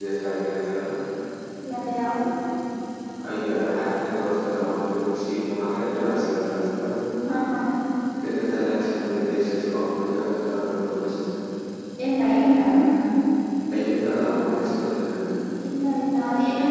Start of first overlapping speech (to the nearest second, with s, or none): none